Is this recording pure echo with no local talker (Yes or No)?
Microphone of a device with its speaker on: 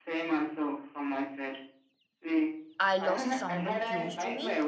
No